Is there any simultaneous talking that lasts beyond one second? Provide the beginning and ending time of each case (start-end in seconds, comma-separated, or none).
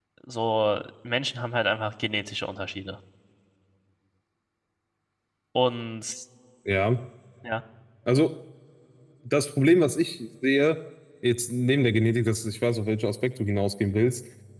none